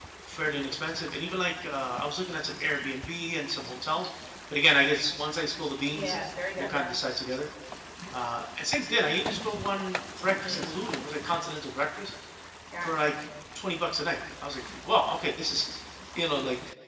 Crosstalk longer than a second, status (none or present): none